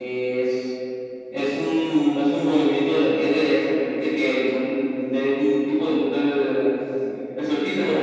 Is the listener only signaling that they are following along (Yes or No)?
No